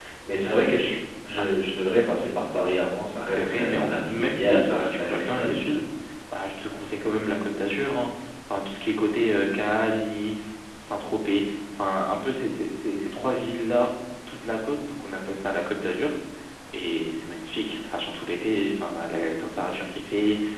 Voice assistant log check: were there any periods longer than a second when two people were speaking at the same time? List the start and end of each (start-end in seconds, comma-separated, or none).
3.3-5.5